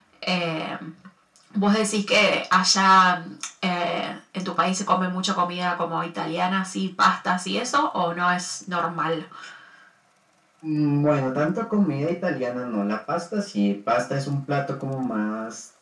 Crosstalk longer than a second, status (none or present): none